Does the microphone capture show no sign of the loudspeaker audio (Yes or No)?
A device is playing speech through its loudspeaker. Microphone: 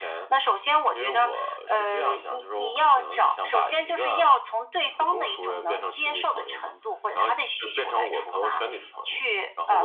No